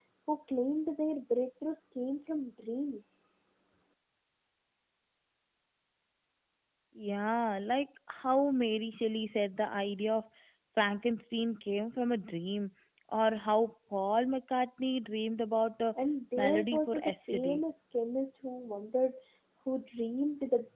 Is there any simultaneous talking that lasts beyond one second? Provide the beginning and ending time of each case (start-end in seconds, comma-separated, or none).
16.4-17.6